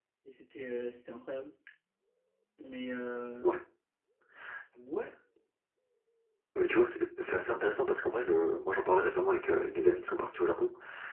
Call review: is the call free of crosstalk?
Yes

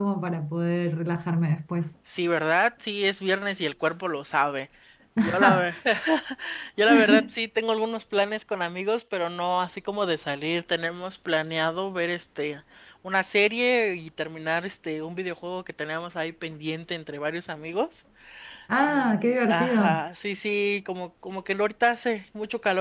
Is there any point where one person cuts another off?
Yes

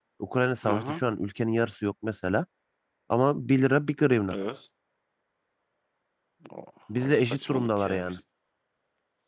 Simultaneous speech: Yes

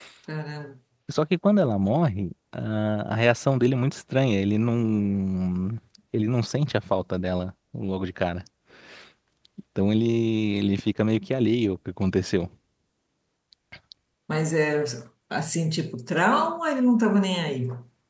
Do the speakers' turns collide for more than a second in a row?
No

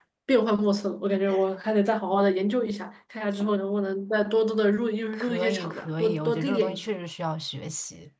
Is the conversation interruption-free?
No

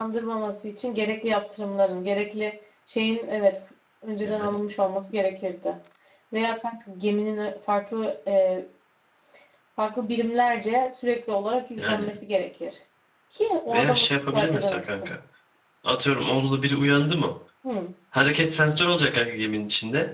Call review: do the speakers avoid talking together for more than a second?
No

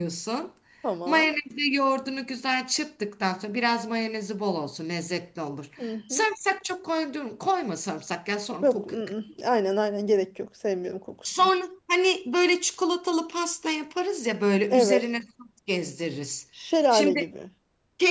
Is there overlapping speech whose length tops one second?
No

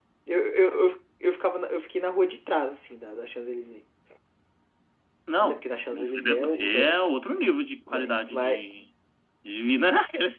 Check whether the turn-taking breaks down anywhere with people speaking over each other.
Yes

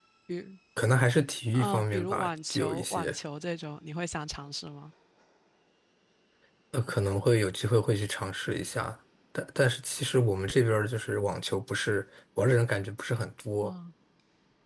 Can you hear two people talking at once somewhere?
Yes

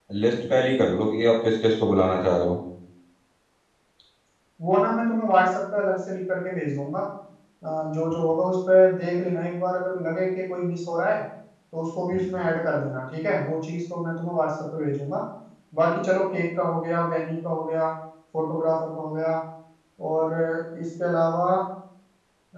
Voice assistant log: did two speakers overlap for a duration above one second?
No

